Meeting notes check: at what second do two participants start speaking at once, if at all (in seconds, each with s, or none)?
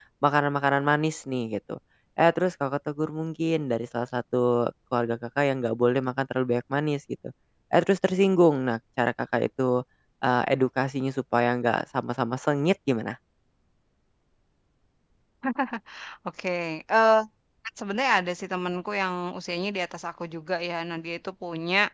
none